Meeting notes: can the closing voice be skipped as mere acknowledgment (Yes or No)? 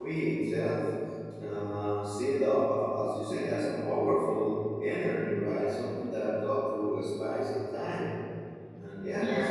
Yes